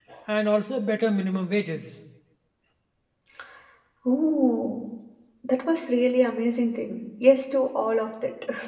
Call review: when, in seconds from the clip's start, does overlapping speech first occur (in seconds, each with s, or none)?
none